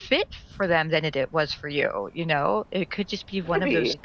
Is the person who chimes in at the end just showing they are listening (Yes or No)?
Yes